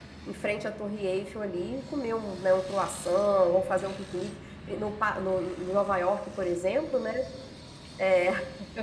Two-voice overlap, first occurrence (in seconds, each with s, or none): none